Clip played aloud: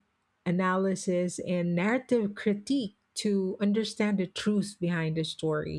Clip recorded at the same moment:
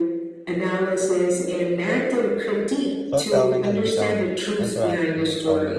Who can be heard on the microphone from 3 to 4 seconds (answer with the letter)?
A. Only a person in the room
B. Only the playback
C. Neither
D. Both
D